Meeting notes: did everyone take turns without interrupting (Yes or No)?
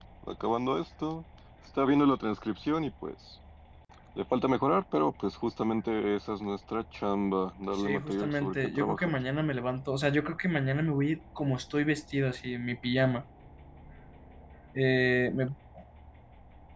No